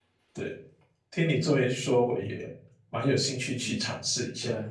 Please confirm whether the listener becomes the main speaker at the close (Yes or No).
Yes